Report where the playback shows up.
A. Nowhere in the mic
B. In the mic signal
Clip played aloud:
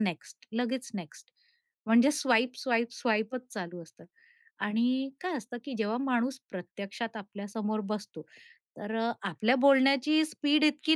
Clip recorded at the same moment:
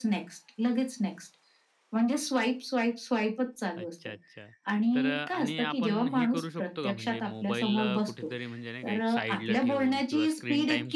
B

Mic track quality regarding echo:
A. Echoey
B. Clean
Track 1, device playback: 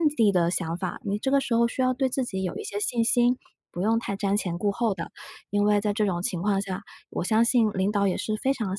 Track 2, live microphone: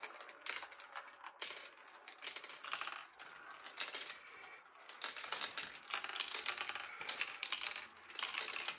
B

